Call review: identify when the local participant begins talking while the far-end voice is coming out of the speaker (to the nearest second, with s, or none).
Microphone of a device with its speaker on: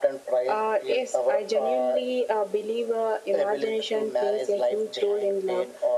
none